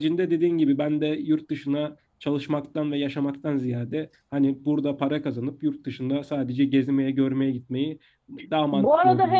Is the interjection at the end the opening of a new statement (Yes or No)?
Yes